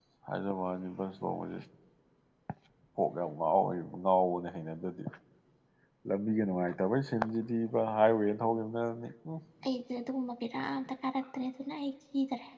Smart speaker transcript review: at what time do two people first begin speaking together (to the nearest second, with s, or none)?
none